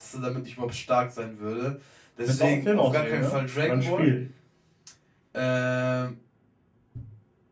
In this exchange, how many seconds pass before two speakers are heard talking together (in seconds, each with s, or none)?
2.3 s